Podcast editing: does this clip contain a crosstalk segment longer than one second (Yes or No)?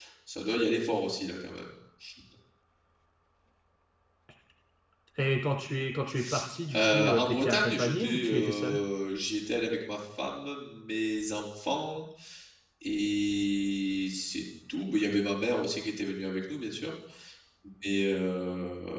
Yes